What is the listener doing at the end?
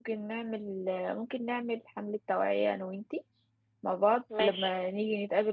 listening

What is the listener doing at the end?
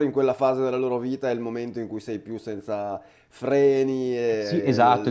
taking over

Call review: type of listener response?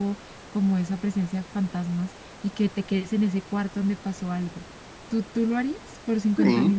taking over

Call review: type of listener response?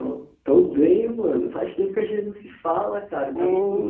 listening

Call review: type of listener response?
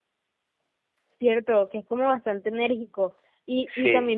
listening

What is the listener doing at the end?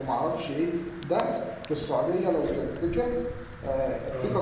listening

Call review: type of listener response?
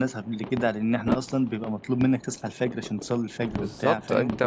taking over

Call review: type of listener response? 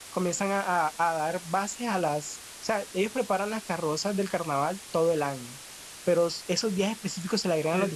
listening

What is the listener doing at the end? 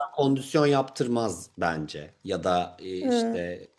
listening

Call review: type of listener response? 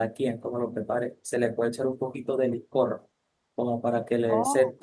listening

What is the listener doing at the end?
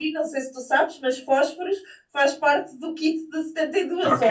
taking over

